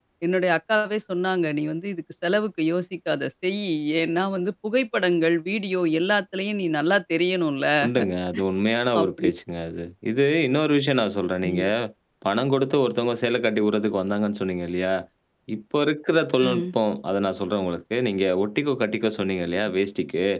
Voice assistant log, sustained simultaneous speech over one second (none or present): none